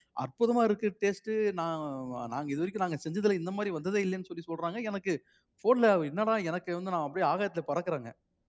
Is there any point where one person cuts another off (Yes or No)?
No